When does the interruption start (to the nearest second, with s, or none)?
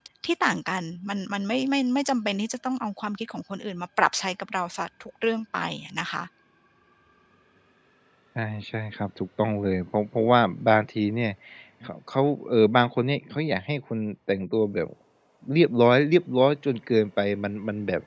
none